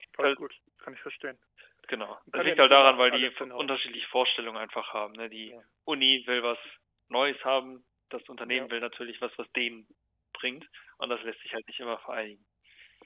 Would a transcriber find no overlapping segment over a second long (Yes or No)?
No